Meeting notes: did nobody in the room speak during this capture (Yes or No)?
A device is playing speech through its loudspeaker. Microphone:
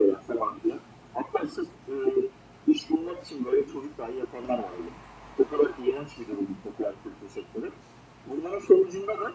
Yes